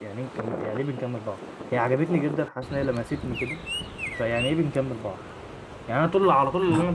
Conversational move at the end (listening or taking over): listening